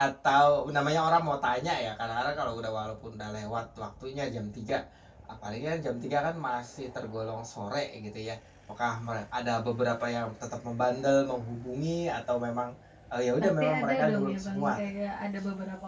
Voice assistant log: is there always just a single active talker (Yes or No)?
No